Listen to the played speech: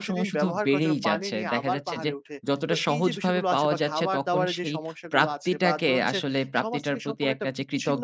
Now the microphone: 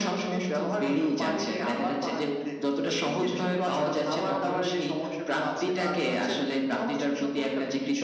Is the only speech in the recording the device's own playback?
Yes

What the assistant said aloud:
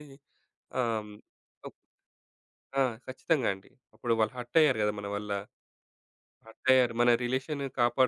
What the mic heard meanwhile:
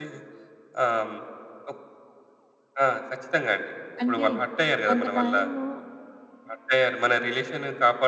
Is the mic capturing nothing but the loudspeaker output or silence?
No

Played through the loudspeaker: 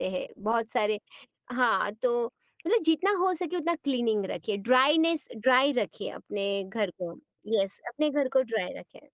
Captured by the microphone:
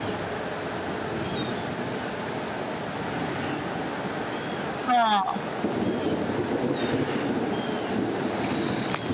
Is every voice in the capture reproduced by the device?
No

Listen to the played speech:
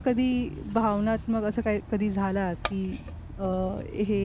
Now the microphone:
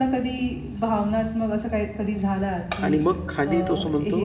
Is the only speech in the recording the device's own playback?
No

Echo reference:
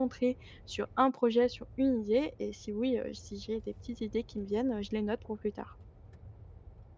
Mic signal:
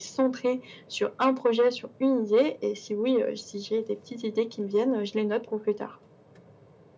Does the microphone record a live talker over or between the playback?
No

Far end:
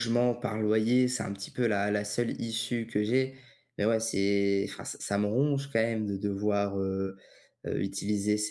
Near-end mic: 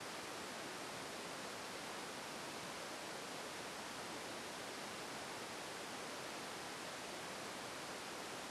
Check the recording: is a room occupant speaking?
No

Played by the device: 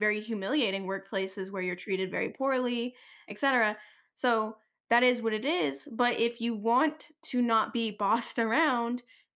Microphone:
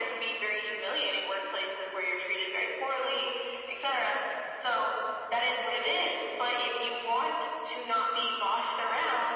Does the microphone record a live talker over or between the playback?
No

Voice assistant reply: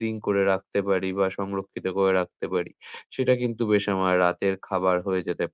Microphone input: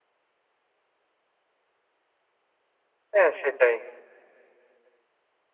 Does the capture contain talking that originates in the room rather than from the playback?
Yes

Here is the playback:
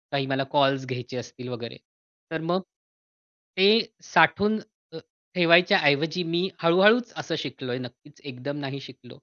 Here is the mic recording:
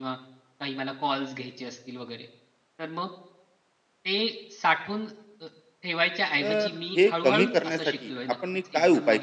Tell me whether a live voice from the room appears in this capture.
Yes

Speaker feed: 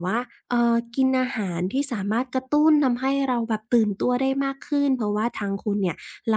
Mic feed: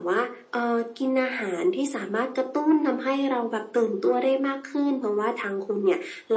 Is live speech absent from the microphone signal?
Yes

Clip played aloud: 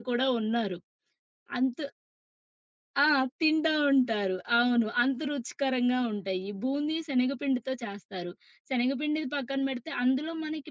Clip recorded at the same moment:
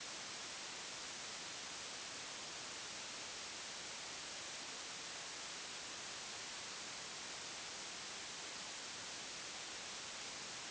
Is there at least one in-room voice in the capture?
No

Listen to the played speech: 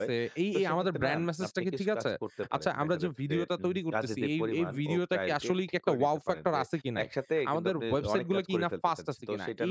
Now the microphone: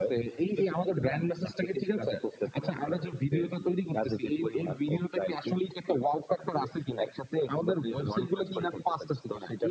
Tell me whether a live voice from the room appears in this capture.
No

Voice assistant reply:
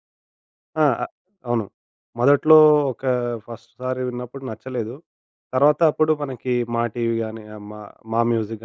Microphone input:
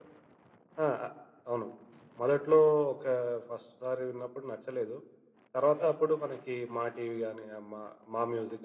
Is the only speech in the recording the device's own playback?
Yes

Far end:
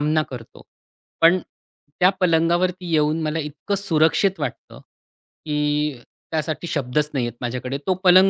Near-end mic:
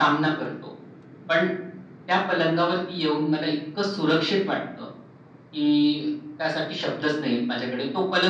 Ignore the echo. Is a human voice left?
No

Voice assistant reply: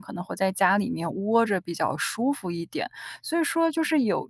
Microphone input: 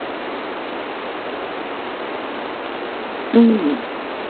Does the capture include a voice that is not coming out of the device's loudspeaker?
Yes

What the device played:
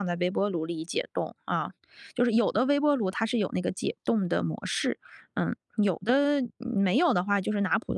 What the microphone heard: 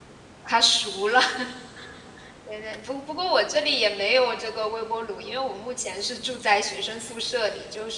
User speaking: Yes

